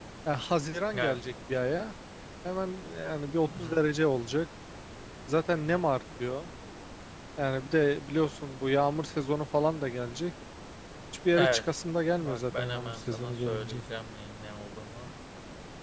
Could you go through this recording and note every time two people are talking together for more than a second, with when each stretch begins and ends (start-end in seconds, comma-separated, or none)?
12.2-13.8